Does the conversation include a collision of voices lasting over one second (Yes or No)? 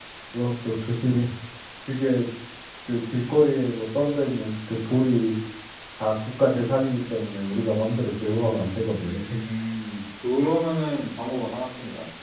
No